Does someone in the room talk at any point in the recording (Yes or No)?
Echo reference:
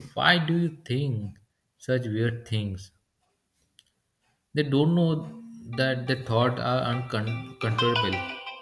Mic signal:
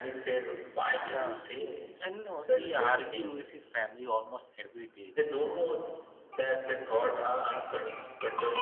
Yes